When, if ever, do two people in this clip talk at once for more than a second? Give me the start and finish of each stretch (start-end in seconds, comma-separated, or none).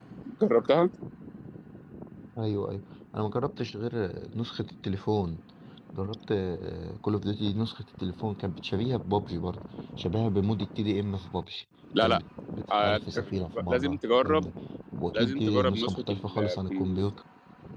12.7-14.5, 15.1-17.0